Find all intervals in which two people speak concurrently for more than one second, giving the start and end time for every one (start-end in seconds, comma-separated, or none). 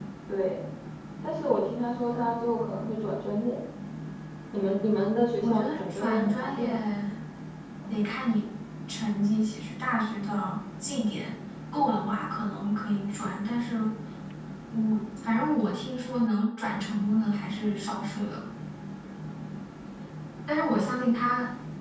5.4-6.8